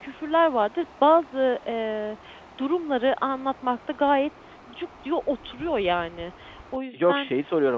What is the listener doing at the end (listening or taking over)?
taking over